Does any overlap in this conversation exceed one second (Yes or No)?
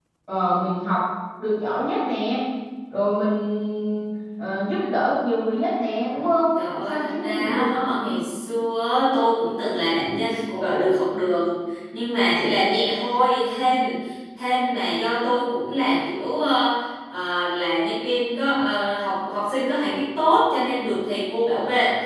Yes